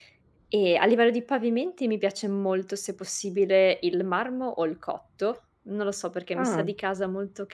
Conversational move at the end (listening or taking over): listening